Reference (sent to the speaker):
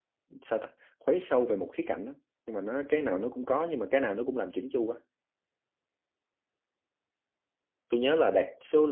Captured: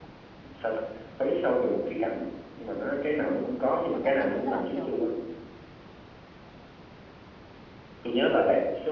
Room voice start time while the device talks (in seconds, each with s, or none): 3.9 s